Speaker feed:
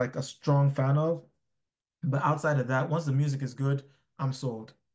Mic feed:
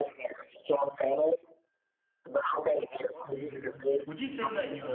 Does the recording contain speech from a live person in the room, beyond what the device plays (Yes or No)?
Yes